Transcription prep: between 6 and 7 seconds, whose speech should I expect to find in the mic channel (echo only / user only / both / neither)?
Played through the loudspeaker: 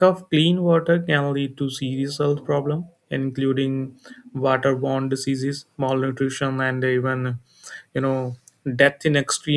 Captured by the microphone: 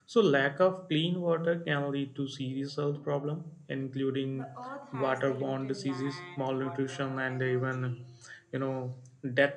both